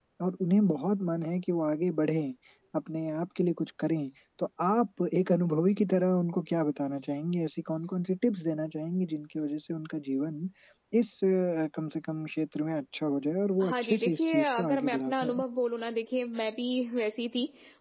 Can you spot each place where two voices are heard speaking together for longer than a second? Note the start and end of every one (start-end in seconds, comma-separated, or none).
13.6-15.4